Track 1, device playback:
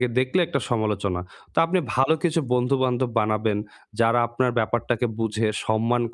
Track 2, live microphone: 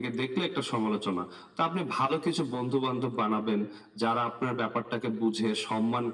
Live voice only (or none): none